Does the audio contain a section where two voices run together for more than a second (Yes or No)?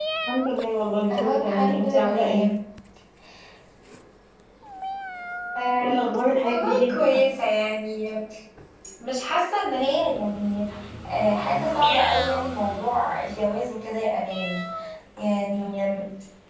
Yes